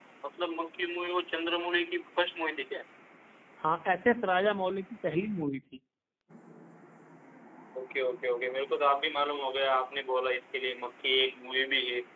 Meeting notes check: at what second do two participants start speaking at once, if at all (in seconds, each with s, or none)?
none